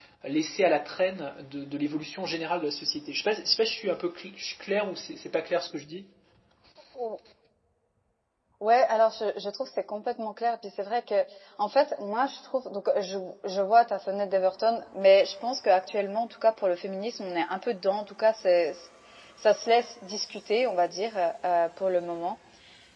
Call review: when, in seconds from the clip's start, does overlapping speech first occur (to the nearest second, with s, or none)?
none